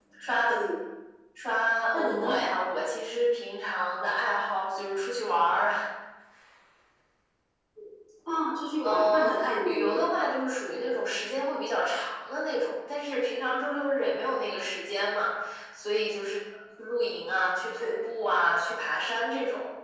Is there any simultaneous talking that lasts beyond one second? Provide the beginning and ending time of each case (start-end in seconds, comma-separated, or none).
8.8-10.1